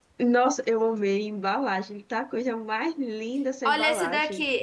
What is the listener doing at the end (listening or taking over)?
taking over